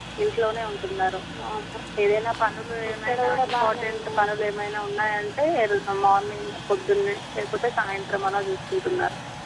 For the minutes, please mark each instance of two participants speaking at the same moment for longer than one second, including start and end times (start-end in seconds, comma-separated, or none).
2.9-4.5